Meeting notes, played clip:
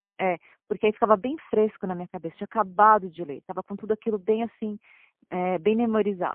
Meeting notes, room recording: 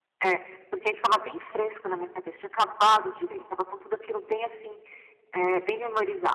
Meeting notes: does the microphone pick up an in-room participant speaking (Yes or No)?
No